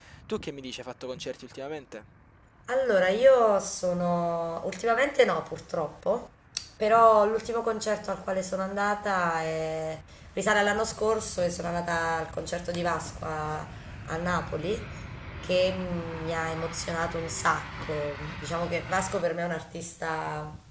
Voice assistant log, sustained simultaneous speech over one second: none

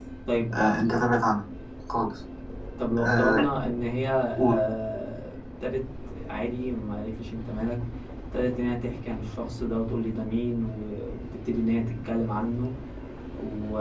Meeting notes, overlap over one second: none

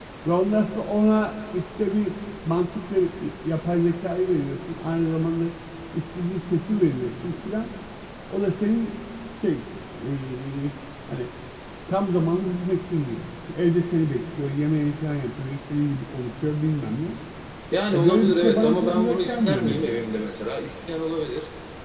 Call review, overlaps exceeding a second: present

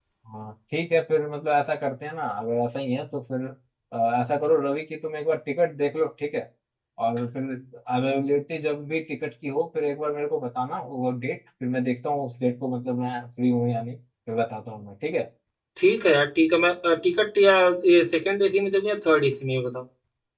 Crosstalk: none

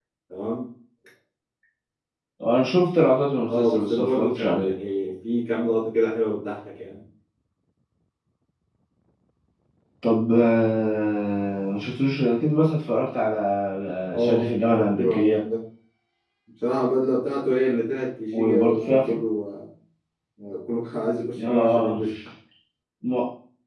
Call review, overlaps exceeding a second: present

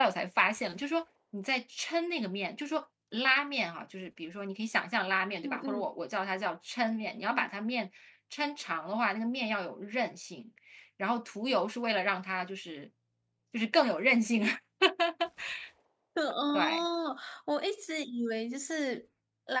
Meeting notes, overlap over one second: none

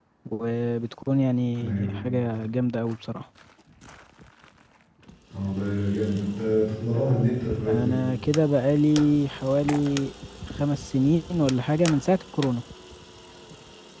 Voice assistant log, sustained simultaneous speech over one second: none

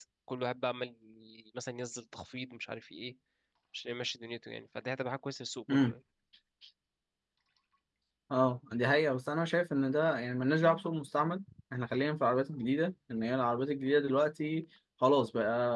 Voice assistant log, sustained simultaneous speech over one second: none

